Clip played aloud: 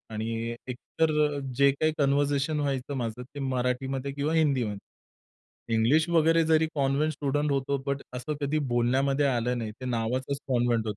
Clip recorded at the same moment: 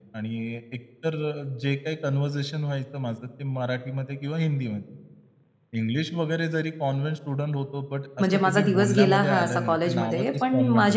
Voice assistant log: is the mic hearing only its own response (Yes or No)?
No